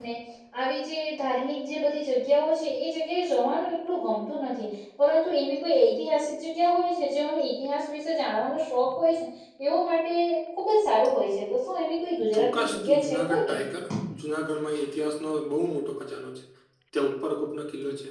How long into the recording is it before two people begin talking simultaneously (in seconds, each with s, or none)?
12.3 s